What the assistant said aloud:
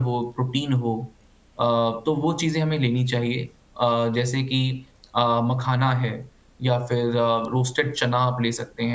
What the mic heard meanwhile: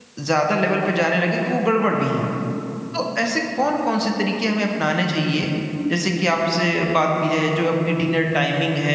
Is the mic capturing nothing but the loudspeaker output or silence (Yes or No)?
No